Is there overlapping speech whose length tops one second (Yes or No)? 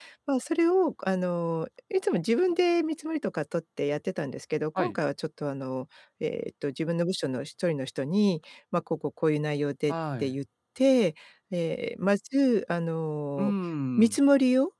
No